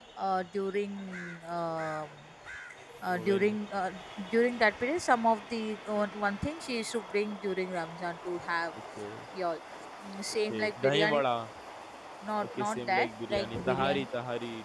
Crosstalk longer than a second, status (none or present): present